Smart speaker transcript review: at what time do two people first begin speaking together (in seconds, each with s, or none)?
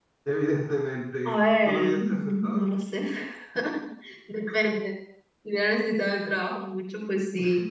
1.2 s